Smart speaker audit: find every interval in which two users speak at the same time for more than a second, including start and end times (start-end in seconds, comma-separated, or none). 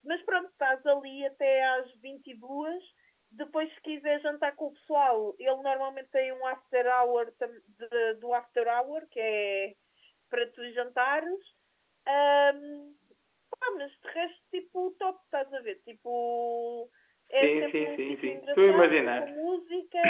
17.3-19.4